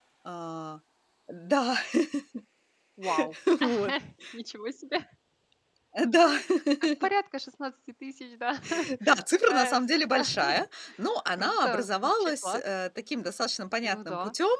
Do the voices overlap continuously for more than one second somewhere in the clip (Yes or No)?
Yes